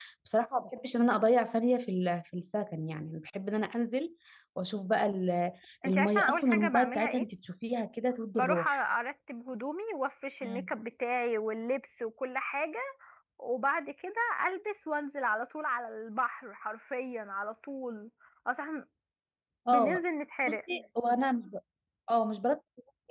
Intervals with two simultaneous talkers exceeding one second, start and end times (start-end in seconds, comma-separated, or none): 5.8-7.2